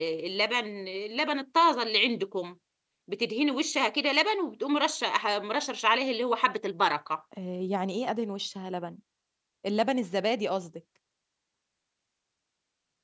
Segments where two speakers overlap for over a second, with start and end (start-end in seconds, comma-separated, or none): none